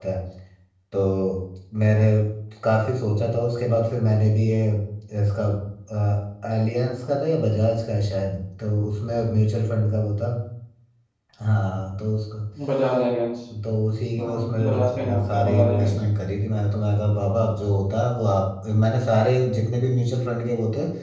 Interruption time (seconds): 14.2 s

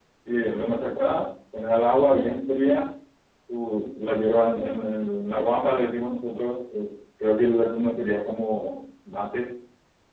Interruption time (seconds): none

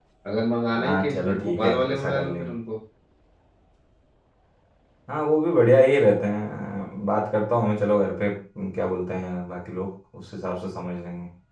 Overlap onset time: 0.8 s

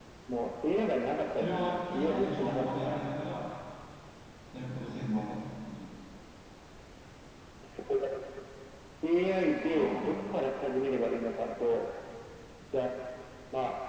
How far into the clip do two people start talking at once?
1.4 s

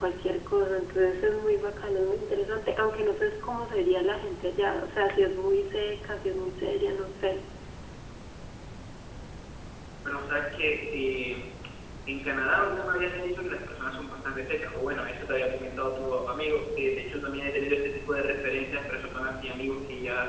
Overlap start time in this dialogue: none

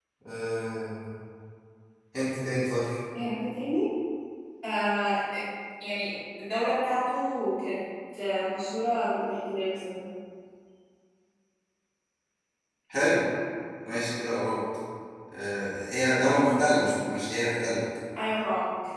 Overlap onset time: none

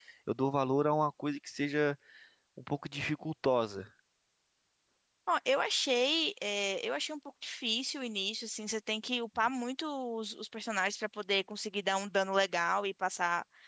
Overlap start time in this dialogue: none

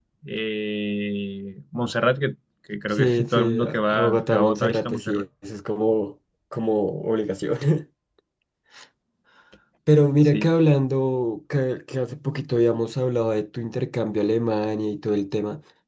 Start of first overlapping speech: 2.9 s

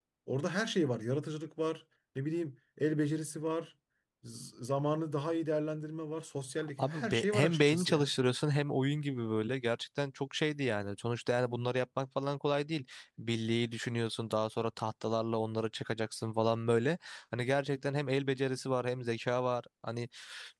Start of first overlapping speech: 6.8 s

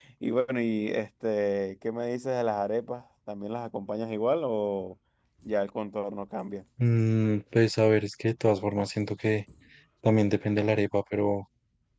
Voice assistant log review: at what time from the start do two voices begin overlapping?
none

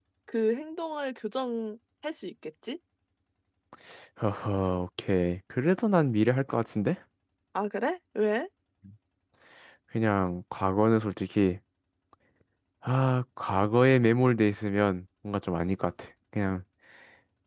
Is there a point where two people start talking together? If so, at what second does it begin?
none

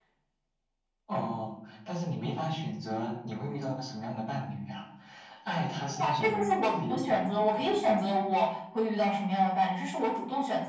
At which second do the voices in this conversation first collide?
5.9 s

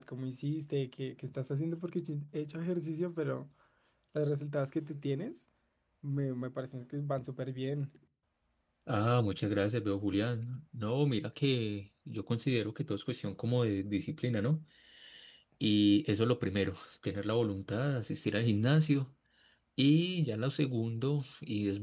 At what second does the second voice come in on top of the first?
none

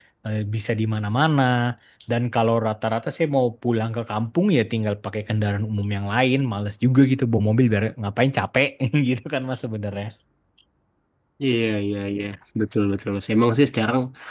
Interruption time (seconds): none

